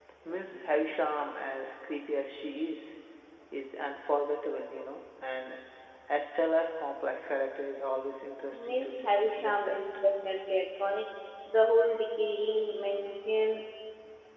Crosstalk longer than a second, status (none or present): present